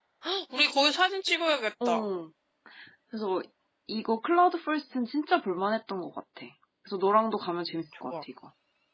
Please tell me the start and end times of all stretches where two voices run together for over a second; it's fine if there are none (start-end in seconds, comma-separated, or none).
none